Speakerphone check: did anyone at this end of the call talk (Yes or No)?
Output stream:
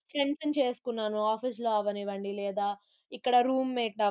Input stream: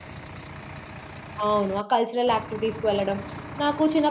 Yes